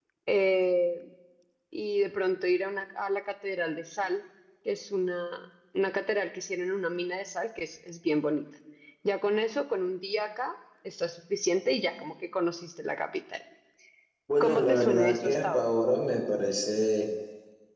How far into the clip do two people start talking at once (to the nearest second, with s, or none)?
14 s